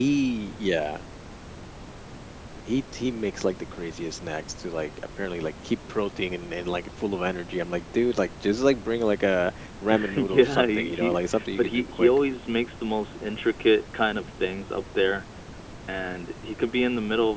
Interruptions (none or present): present